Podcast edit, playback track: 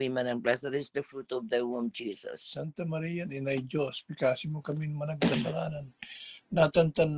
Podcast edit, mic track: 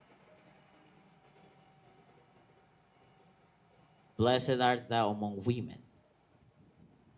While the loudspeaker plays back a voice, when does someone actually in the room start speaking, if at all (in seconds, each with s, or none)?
4.2 s